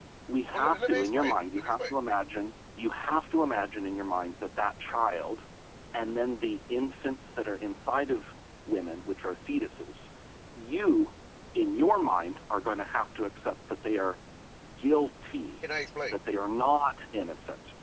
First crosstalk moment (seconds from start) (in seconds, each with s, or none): 0.5 s